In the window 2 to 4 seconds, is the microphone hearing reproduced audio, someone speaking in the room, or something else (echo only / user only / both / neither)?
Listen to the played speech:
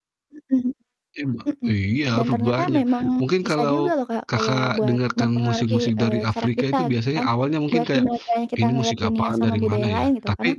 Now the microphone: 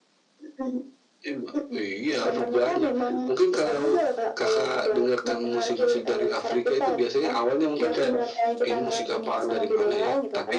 echo only